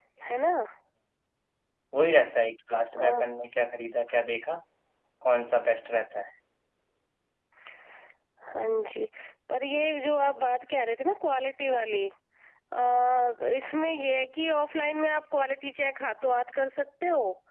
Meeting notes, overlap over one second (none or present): none